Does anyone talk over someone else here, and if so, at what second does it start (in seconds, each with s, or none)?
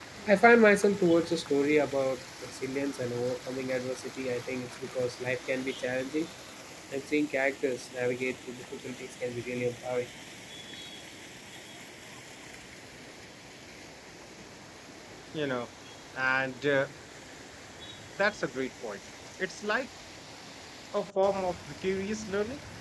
none